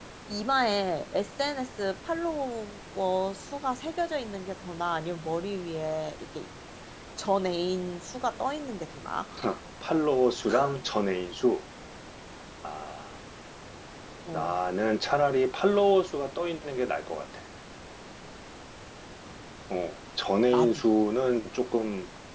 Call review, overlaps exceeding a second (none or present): none